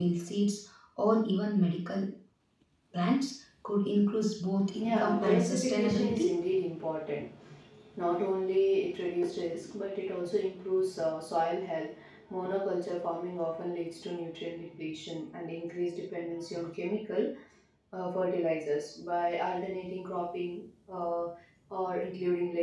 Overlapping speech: Yes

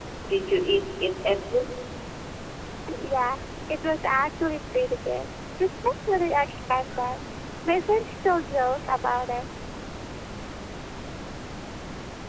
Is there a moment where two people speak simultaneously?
No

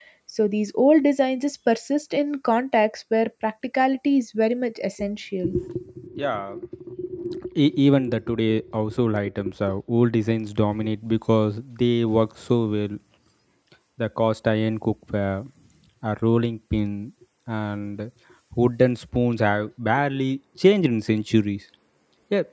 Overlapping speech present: No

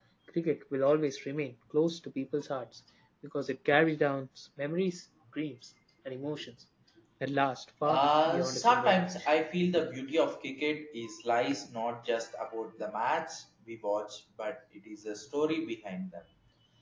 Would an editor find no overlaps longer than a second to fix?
No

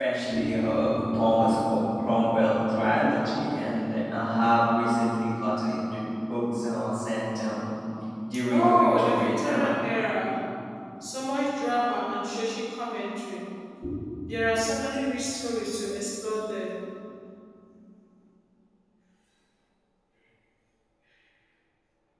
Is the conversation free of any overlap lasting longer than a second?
No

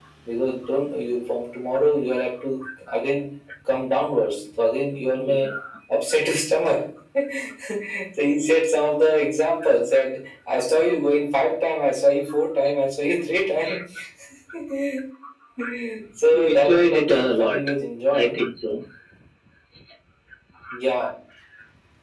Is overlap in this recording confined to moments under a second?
No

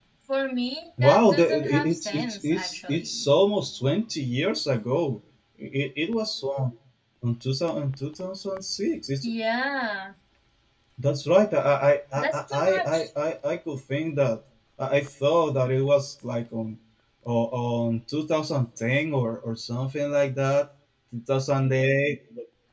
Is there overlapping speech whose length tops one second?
Yes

